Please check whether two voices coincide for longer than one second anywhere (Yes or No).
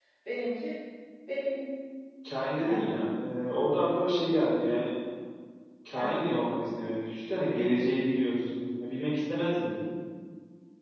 No